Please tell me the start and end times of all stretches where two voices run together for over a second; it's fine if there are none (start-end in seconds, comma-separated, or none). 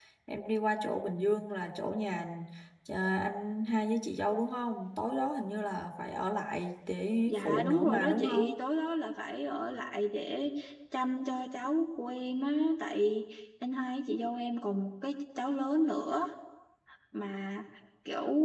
7.3-8.6